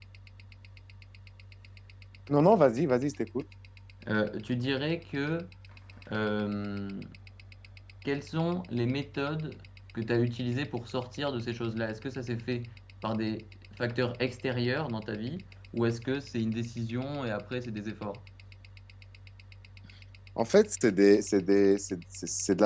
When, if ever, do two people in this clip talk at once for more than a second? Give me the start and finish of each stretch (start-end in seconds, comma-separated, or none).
none